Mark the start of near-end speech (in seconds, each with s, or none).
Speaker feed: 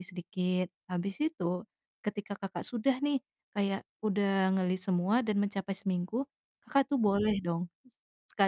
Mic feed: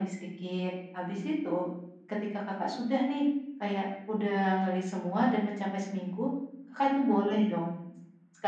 none